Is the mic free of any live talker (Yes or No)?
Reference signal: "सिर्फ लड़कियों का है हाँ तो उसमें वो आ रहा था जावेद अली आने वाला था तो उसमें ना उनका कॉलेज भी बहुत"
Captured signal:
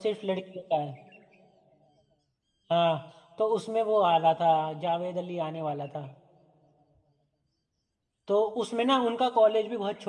Yes